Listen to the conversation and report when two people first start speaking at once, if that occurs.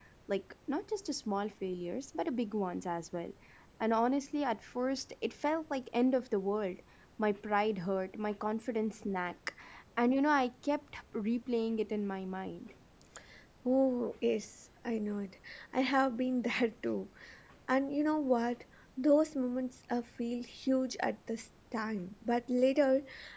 none

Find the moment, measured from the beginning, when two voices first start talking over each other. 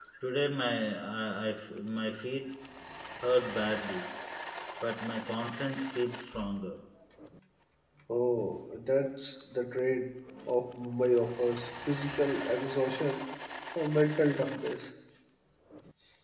none

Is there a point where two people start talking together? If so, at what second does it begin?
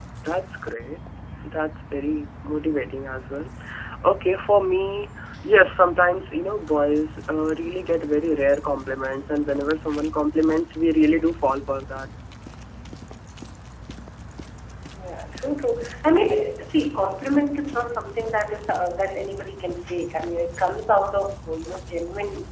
none

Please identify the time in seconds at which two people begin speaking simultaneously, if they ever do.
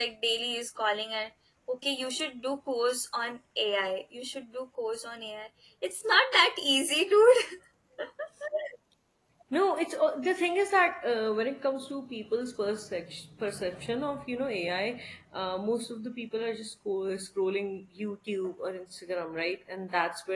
none

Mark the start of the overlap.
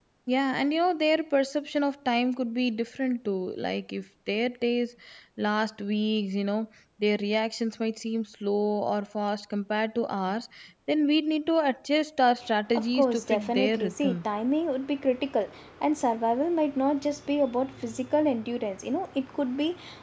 12.7 s

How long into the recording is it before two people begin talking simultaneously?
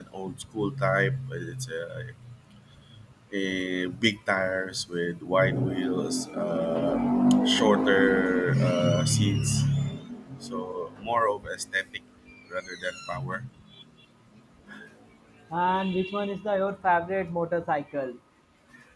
none

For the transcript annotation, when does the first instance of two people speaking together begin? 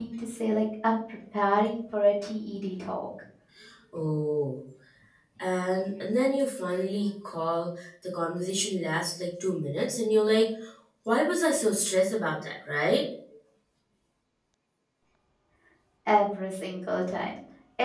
none

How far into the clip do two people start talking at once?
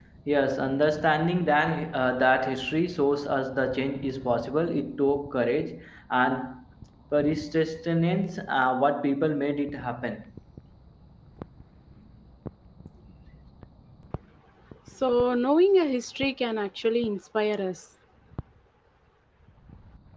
none

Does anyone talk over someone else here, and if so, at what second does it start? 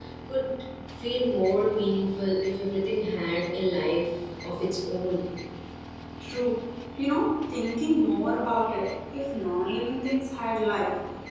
none

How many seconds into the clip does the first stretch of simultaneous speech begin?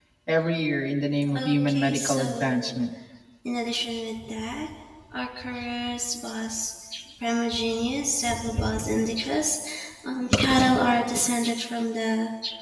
1.2 s

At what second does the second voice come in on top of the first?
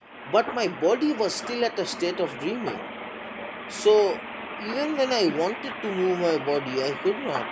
none

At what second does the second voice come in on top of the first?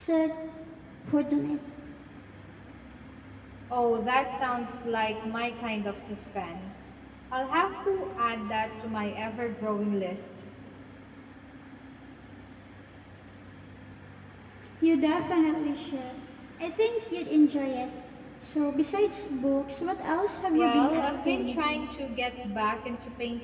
20.5 s

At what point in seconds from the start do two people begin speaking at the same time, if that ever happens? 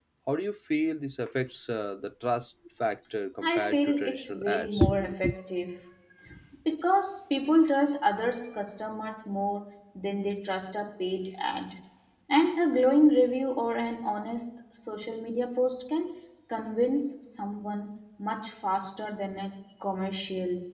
3.4 s

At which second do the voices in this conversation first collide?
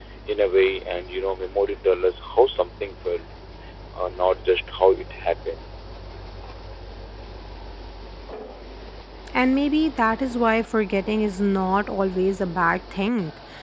none

